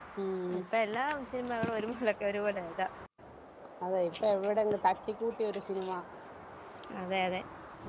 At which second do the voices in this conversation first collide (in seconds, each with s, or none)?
none